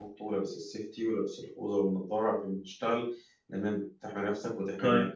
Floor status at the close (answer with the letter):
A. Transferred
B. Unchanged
A